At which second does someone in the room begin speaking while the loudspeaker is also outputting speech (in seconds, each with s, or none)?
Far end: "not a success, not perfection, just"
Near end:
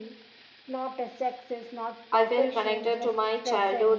2.1 s